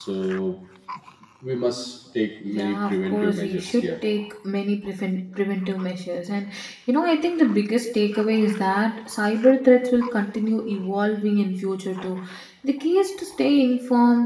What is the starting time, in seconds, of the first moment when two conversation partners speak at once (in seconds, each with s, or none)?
2.4 s